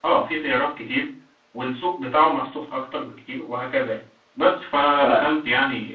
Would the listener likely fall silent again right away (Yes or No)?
Yes